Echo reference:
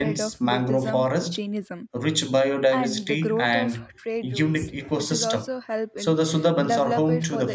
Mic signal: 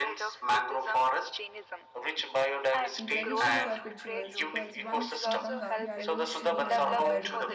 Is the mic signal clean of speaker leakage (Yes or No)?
No